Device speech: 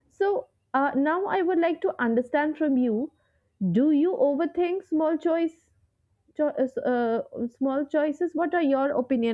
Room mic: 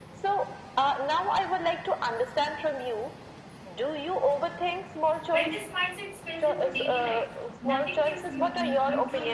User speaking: Yes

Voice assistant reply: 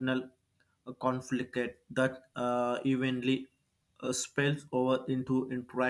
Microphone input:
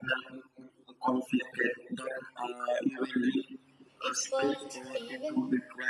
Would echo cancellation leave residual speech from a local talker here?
Yes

